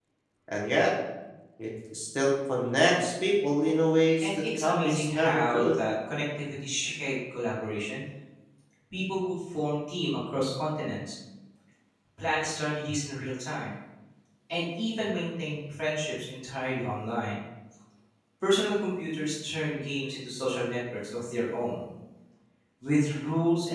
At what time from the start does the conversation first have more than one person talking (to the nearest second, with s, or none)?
4 s